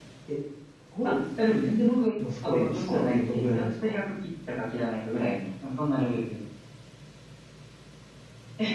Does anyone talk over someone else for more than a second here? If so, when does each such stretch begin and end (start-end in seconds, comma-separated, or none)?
2.4-3.9